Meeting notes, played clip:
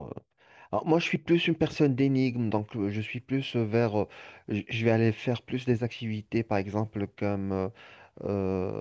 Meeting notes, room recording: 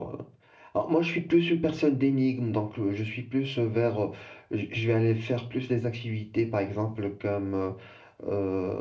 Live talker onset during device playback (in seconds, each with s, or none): none